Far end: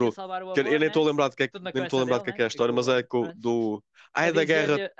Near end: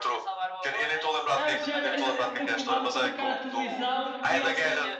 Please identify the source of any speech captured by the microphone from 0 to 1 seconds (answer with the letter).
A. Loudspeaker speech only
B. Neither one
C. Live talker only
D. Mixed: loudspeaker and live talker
A